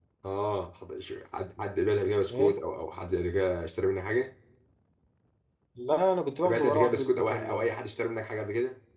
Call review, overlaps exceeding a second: present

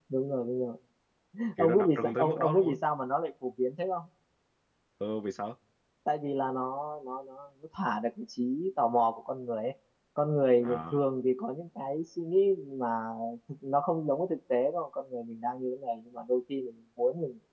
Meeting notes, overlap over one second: present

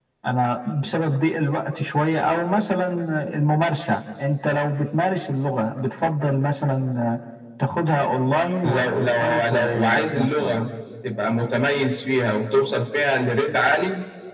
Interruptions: present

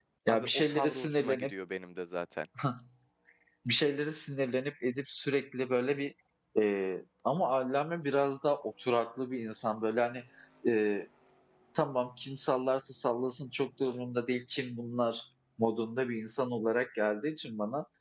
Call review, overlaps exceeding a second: present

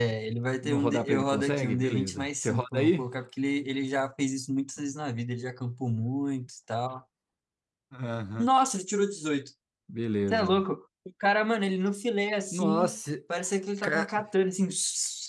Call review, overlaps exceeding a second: present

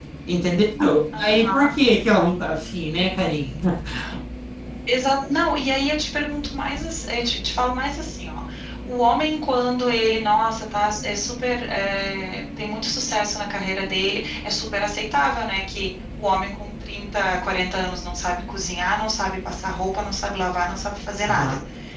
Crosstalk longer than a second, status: none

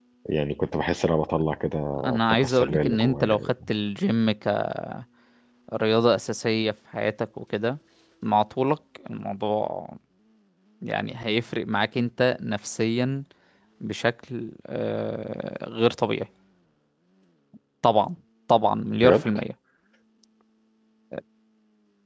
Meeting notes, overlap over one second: present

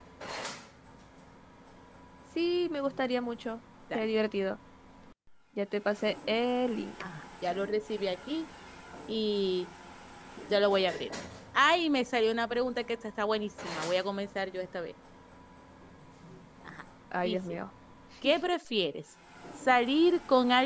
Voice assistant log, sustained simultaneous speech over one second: none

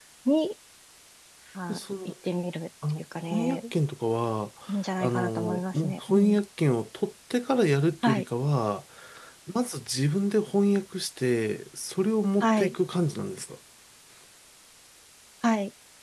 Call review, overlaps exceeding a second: present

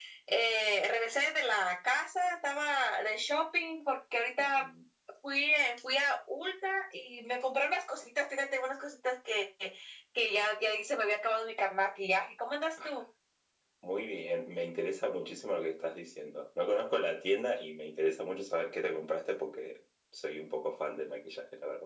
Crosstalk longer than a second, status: none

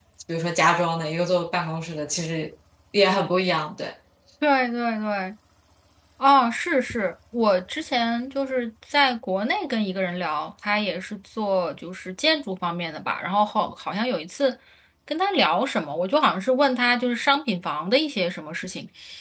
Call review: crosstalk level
none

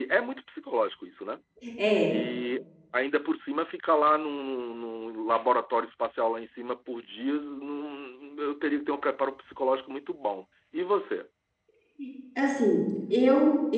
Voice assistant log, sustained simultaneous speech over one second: none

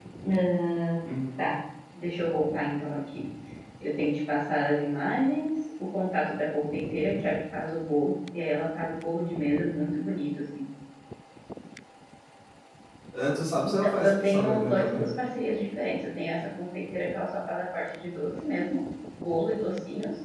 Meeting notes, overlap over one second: present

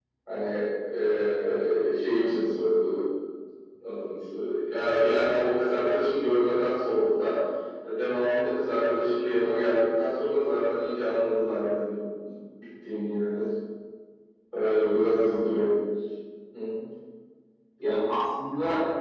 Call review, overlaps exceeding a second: none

